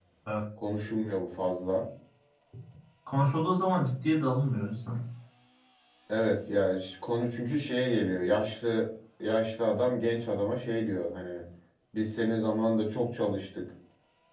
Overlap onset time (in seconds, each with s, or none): none